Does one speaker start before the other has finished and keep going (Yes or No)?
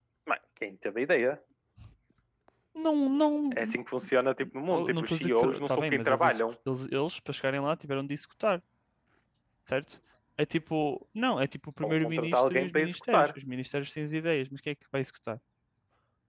Yes